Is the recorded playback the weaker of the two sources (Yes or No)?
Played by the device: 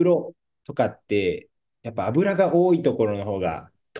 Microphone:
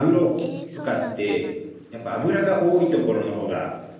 No